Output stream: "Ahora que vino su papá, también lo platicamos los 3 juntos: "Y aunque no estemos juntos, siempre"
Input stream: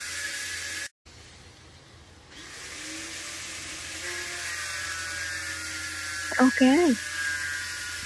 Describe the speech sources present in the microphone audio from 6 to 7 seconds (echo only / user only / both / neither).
user only